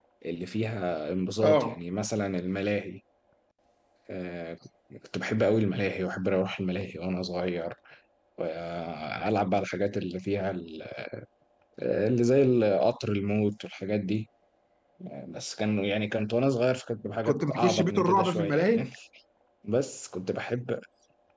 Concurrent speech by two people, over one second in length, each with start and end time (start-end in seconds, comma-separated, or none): 17.2-18.8